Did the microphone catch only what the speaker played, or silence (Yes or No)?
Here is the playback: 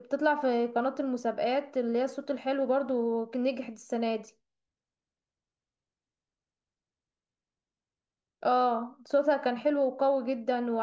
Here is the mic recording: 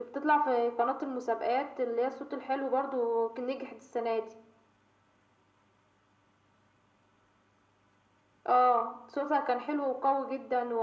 Yes